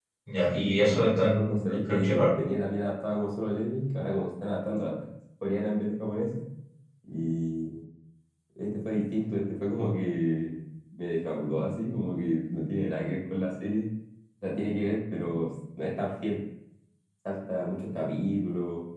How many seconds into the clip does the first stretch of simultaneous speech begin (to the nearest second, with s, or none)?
1 s